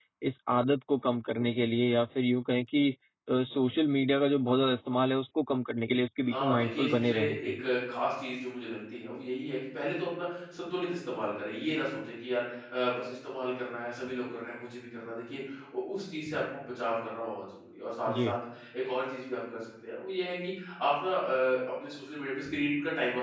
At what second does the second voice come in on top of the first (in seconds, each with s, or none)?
6.3 s